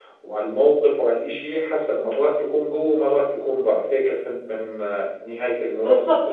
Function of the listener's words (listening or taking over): taking over